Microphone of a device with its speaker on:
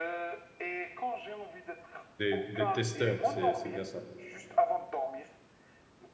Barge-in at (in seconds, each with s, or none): 2.2 s